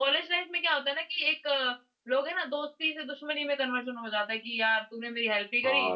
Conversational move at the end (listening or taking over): taking over